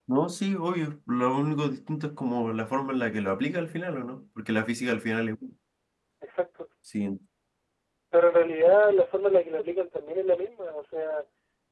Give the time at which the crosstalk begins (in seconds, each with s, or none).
none